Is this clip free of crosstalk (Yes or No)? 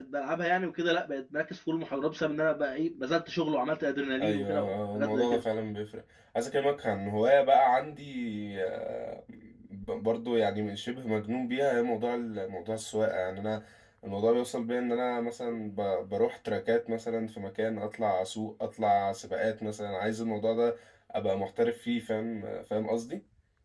No